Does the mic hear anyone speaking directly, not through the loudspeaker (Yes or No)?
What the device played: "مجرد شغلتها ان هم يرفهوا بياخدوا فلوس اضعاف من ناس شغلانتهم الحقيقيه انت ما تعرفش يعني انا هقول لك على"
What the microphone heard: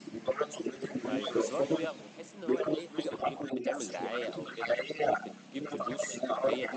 Yes